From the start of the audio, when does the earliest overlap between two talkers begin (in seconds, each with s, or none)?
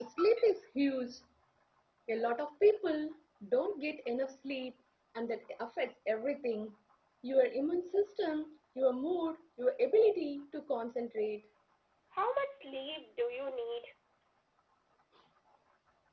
none